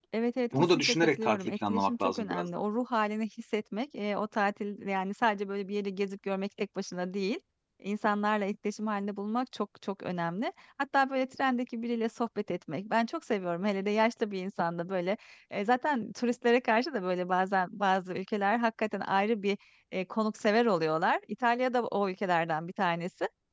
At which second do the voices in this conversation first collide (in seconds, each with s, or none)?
0.7 s